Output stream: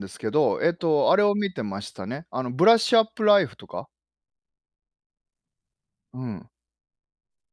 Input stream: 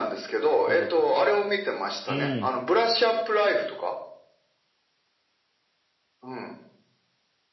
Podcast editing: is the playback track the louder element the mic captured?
Yes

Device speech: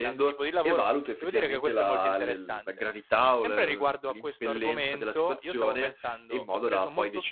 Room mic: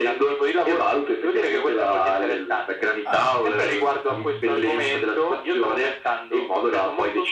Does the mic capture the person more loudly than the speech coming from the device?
No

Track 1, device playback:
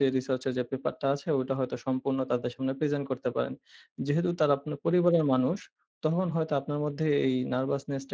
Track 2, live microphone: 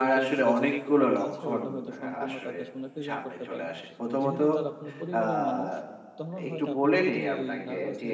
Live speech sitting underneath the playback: No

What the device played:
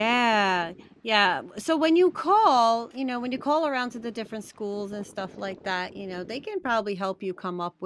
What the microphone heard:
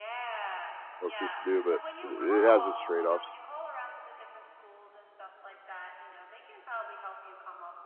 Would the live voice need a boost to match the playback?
No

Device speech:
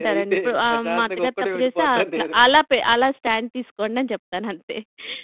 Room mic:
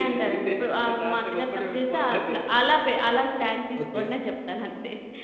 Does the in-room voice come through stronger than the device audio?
No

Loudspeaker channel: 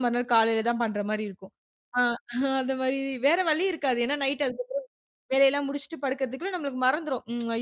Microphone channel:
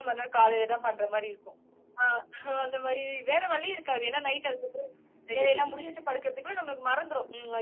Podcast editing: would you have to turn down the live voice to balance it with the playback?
No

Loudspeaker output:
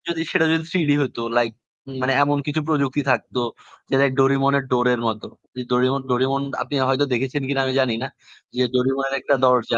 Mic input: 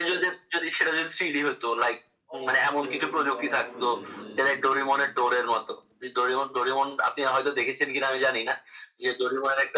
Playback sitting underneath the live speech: No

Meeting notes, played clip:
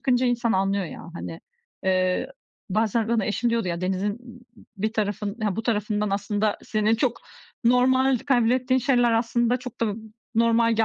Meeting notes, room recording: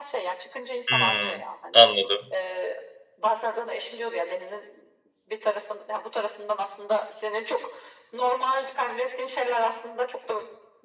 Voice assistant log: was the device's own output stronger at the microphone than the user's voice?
No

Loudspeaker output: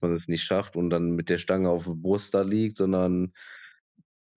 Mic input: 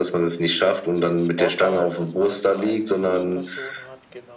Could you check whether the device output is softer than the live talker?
No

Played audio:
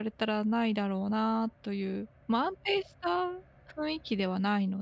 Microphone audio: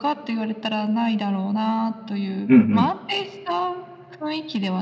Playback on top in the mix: No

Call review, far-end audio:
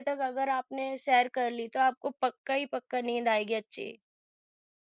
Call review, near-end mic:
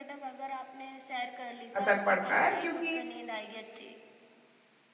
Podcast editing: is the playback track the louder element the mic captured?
No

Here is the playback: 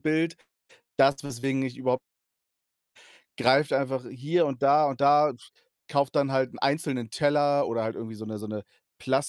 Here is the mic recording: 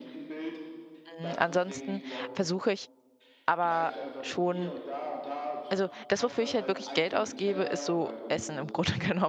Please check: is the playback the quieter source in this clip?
Yes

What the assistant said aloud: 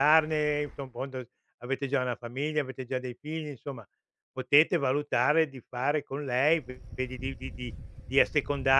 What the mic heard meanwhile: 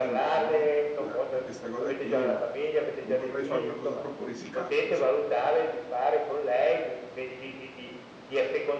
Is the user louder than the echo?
No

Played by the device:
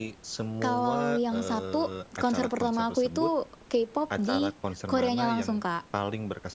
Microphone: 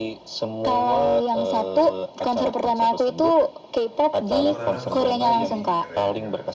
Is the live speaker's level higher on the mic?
No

